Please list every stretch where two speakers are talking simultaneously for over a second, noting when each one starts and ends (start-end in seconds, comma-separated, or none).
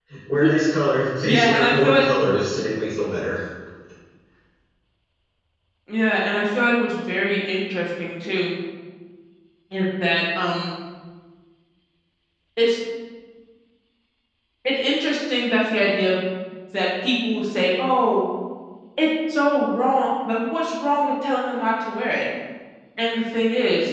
1.2-2.5